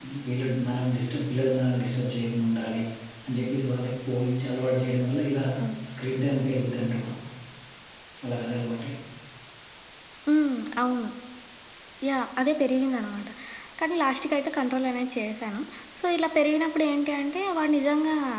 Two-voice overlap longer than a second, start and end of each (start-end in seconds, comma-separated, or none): none